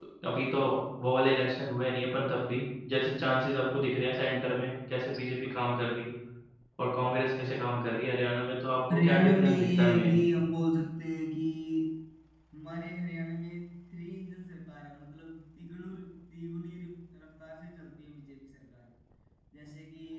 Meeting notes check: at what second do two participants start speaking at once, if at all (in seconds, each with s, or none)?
8.9 s